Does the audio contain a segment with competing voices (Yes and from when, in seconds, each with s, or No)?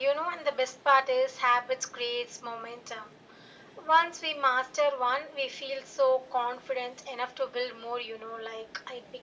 No